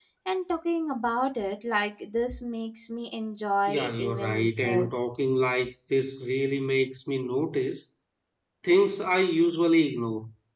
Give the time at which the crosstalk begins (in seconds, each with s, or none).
3.7 s